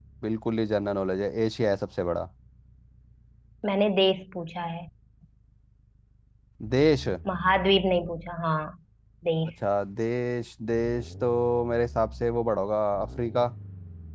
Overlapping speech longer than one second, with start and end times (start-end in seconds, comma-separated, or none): none